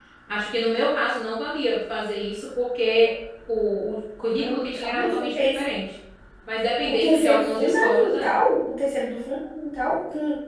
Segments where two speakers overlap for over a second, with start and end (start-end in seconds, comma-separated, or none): 4.4-5.6, 6.9-8.3